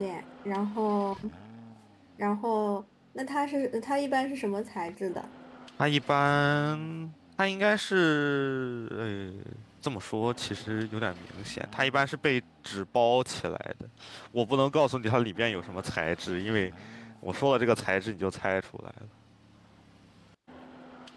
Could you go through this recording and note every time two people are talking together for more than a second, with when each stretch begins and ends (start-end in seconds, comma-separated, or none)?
none